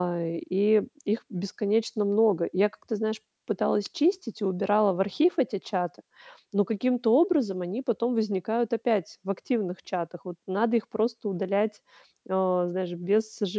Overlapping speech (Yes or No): No